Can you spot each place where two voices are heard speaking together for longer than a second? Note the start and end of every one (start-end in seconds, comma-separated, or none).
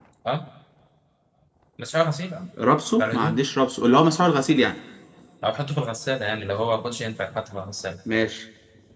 none